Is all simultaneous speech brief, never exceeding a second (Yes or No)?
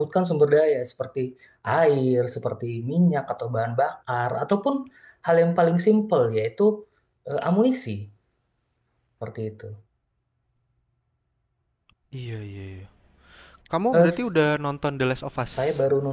Yes